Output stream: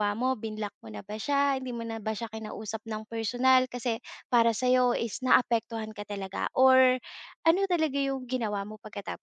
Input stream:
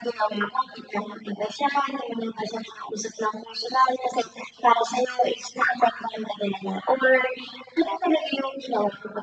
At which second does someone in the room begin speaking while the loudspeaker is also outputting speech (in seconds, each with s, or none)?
none